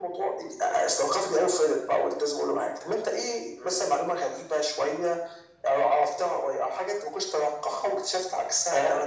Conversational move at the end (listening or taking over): taking over